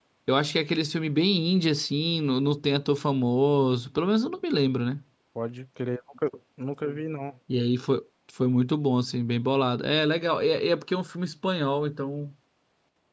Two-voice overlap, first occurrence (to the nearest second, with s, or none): none